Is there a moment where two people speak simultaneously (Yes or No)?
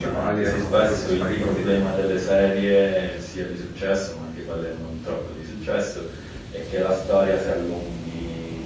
Yes